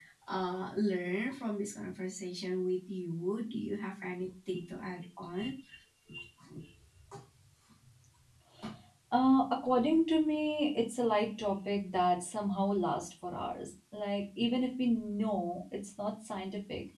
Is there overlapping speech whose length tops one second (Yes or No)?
No